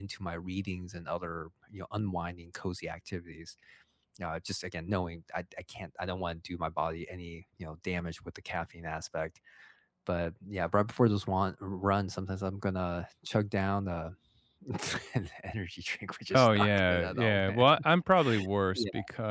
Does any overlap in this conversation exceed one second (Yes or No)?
Yes